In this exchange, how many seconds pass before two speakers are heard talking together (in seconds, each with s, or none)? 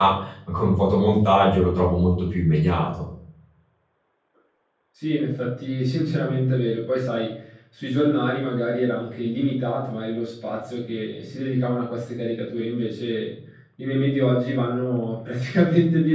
none